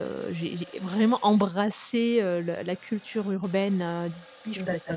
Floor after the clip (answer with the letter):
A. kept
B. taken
A